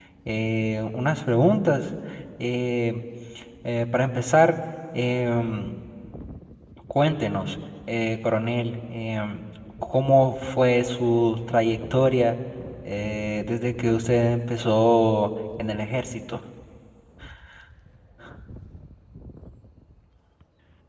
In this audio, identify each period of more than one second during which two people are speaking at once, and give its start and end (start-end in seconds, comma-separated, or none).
none